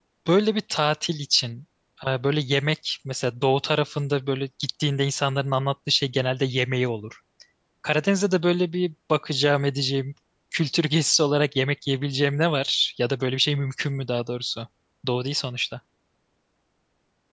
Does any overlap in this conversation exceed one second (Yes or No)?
No